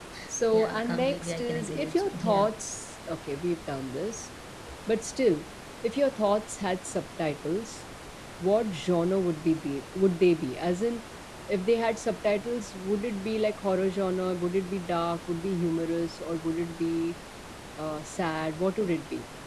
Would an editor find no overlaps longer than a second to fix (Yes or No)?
No